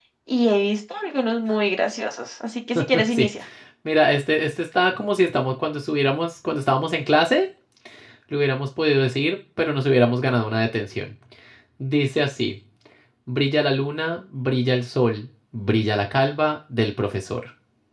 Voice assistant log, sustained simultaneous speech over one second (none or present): none